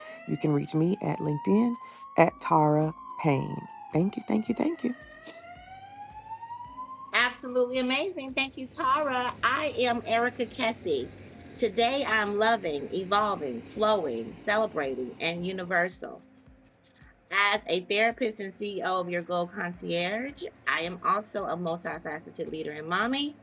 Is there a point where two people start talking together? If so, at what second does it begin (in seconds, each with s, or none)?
none